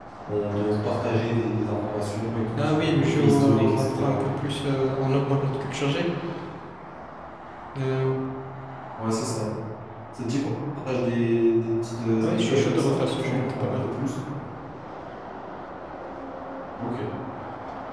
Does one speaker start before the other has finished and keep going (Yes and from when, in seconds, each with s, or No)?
Yes, from 2.6 s